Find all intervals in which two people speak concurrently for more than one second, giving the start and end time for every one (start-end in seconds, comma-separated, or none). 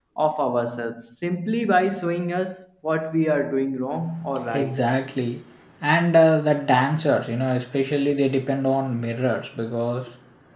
none